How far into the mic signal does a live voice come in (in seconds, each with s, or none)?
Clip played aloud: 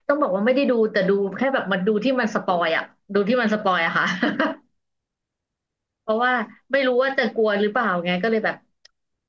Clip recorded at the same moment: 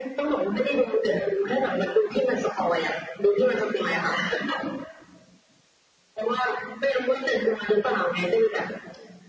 none